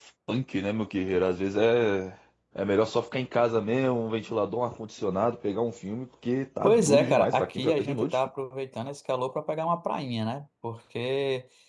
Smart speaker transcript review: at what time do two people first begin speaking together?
6.6 s

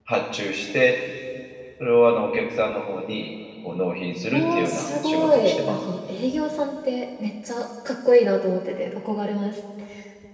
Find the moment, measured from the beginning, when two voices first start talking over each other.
4.3 s

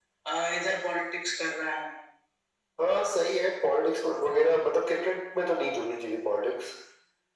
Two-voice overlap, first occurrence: none

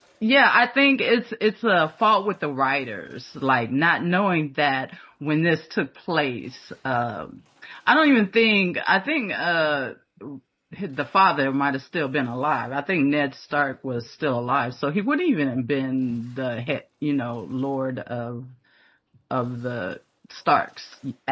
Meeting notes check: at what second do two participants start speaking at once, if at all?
none

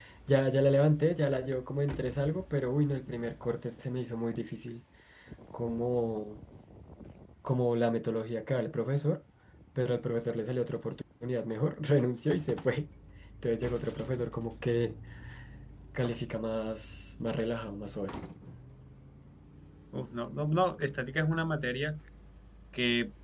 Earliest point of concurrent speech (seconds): none

